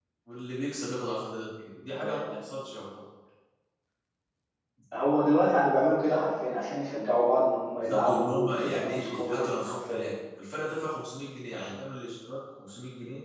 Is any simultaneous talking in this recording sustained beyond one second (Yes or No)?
Yes